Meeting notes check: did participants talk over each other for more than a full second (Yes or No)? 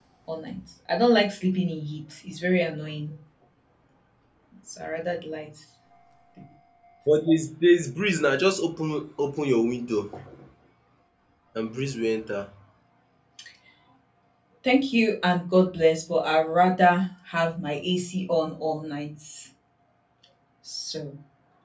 No